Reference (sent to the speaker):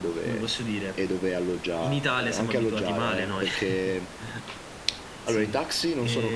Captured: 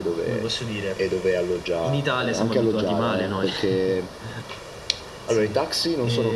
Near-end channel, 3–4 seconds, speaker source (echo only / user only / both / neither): echo only